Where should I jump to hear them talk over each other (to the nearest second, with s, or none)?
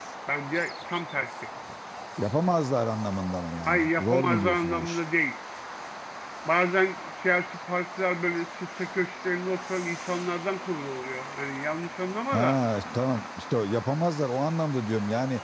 4 s